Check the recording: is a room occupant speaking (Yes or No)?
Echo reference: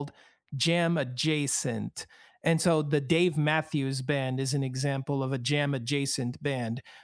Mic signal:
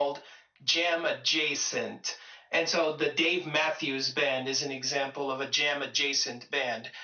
No